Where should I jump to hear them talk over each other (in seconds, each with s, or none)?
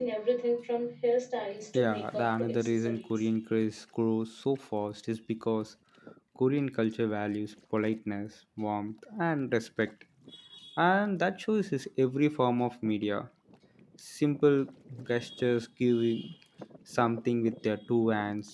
1.7 s